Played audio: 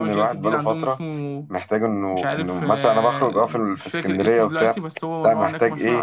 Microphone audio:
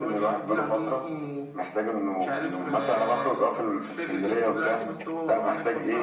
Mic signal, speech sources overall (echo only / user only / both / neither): echo only